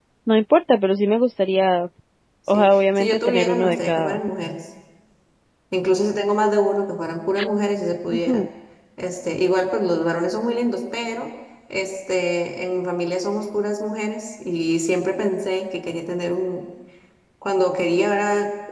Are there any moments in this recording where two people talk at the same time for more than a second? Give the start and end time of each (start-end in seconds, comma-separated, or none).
2.5-4.2